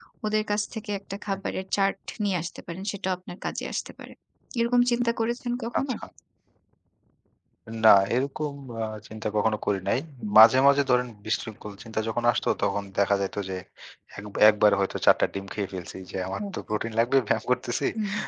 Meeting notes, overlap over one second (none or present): none